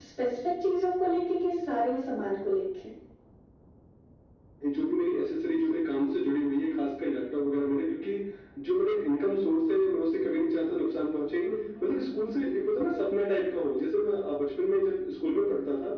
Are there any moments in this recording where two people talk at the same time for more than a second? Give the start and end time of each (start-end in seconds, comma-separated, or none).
none